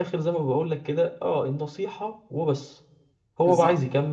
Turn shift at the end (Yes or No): No